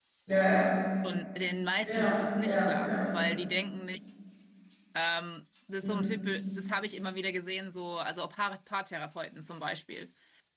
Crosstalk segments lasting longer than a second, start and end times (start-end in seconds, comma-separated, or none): 1.8-3.1